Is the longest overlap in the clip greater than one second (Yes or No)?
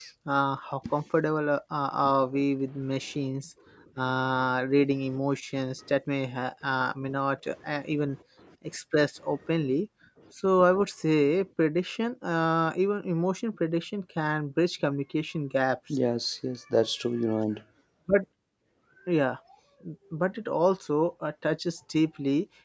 No